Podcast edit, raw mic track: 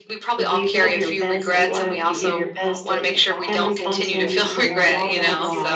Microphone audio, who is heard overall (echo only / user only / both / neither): both